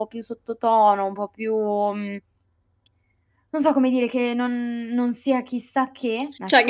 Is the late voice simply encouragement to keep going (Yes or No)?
No